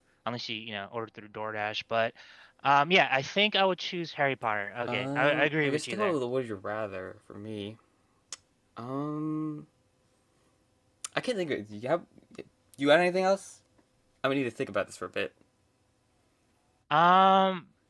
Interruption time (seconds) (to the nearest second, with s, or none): 5 s